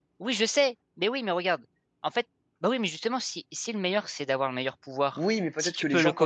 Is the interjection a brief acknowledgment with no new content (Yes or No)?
No